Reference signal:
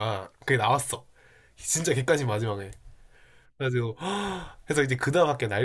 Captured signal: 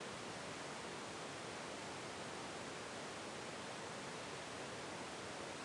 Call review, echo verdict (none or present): none